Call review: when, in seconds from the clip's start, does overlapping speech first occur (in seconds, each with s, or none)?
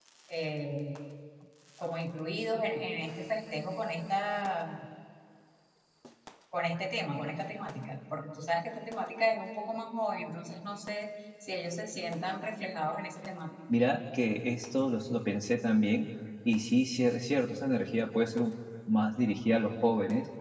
none